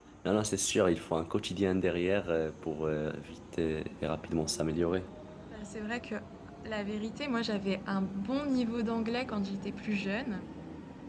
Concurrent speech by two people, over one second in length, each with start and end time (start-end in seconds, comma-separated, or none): none